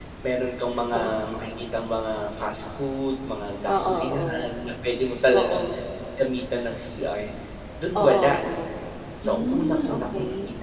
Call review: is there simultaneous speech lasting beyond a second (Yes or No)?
Yes